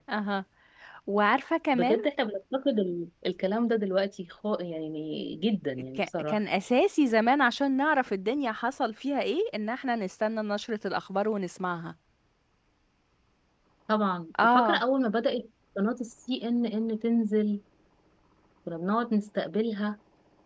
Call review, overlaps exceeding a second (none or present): none